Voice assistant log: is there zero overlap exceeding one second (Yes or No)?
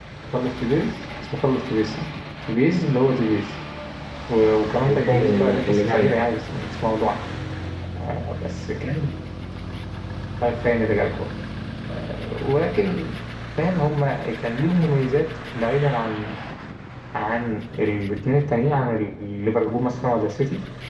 No